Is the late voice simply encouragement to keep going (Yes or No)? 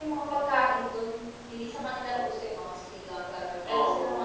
No